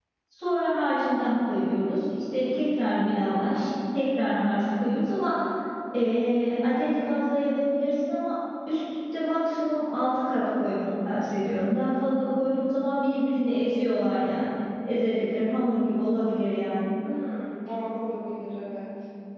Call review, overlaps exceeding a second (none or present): none